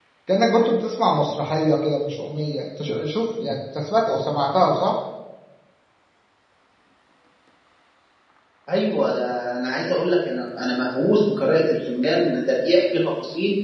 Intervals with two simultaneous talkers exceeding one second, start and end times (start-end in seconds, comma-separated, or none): none